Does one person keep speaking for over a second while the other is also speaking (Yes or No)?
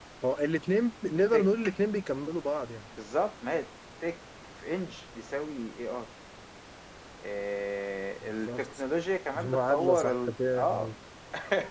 Yes